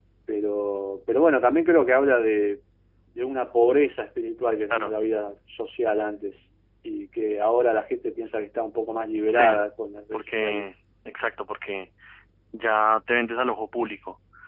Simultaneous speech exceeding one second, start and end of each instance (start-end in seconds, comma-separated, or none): none